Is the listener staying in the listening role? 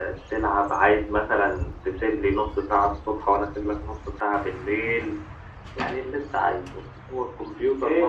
No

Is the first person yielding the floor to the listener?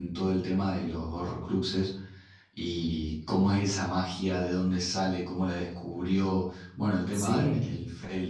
No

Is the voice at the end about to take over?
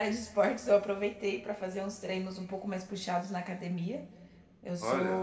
No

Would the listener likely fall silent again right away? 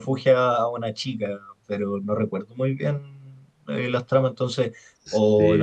Yes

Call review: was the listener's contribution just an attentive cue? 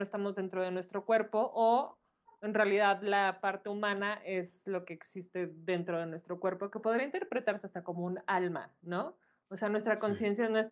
Yes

